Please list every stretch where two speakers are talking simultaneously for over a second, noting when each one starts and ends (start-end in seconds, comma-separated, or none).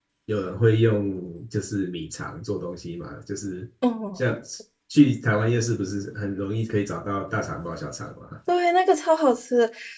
none